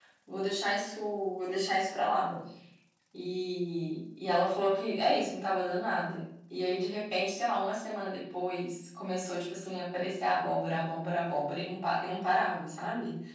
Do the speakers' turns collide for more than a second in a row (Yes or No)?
No